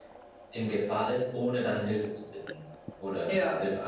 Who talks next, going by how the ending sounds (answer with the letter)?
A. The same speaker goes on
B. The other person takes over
A